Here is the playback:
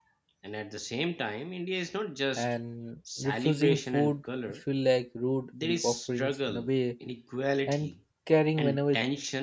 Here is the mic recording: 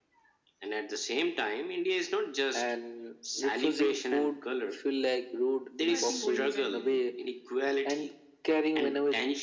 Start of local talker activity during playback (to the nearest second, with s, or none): 6 s